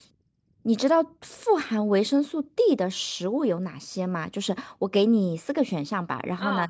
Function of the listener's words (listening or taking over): listening